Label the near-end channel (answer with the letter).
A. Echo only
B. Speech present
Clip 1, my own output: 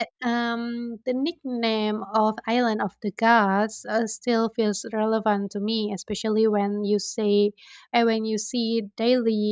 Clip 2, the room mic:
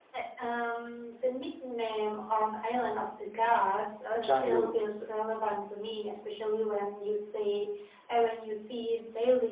B